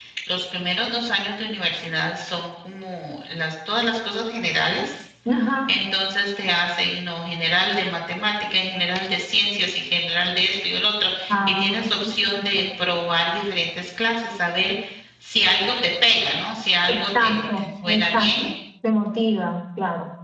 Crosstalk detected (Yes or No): Yes